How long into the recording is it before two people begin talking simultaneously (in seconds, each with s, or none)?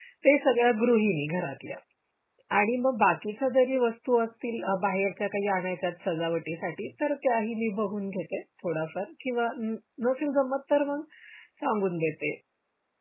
none